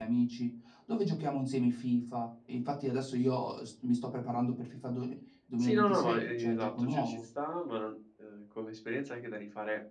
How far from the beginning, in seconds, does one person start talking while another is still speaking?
5.6 s

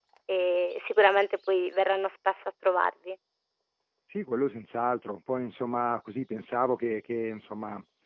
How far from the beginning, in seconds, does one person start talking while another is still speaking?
none

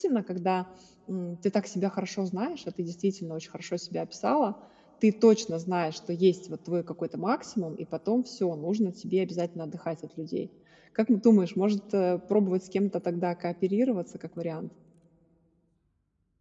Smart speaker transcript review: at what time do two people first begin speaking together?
none

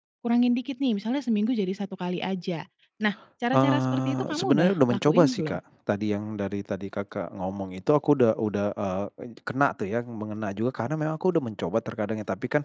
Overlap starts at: 3.5 s

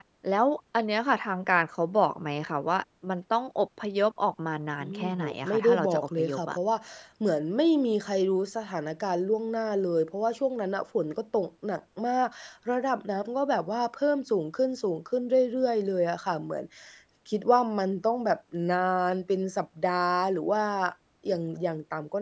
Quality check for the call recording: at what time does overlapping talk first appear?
4.8 s

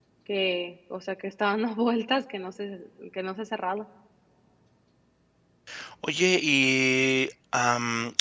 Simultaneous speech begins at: none

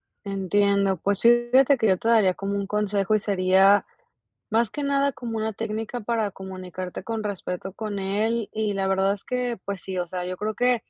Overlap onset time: none

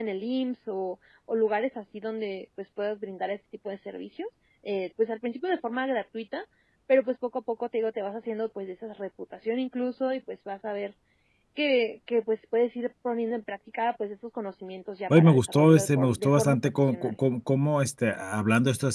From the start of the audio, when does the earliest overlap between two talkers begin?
15.1 s

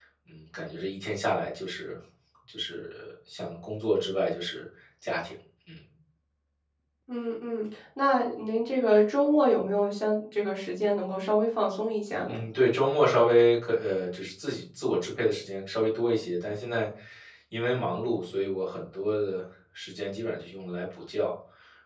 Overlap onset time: none

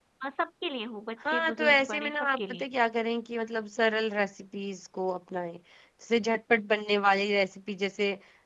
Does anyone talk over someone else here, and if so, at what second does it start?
1.3 s

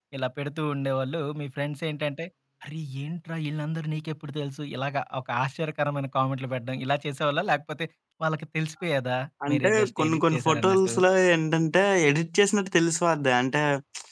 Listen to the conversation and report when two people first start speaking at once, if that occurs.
9.5 s

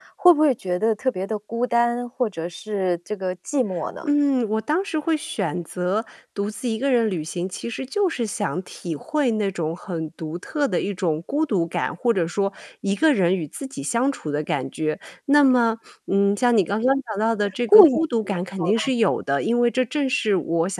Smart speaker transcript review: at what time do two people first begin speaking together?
17.7 s

